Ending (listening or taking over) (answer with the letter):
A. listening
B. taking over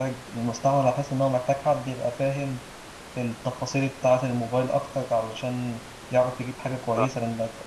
A